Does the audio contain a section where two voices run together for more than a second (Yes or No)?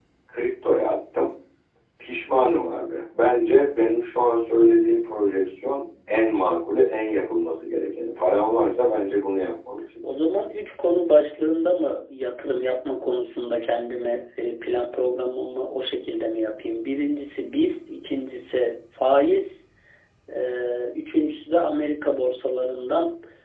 No